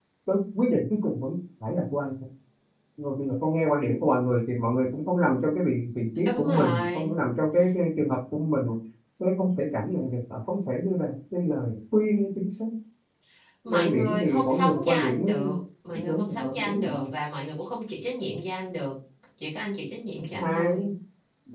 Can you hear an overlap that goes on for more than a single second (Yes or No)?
Yes